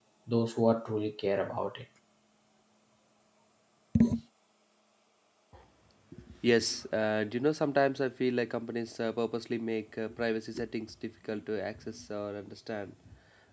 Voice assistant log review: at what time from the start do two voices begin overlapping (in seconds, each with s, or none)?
none